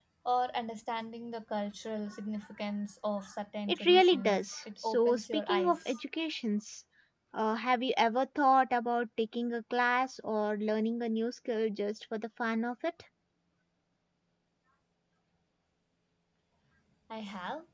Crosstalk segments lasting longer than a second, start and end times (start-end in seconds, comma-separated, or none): 3.7-6.0